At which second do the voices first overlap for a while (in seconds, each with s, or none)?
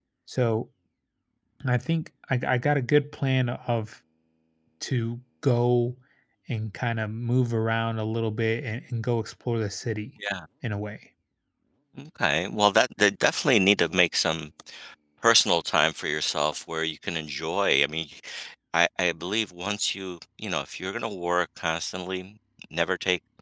none